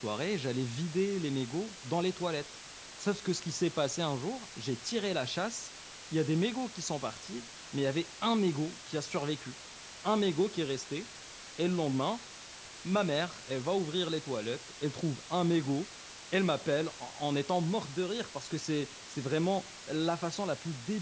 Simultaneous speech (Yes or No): No